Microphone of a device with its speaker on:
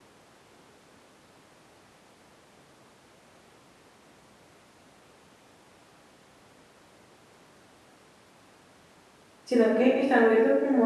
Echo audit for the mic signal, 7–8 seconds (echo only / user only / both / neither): neither